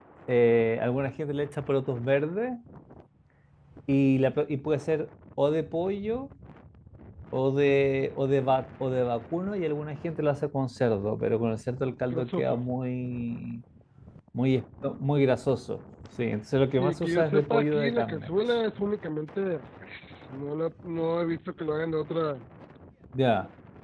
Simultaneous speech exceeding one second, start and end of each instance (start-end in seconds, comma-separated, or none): 16.7-18.3